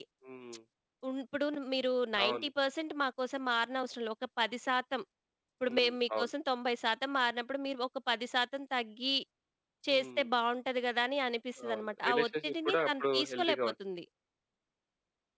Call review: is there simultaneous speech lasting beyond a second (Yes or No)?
Yes